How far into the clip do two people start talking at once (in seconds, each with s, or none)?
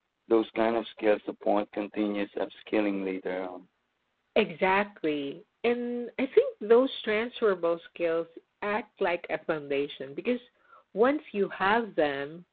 none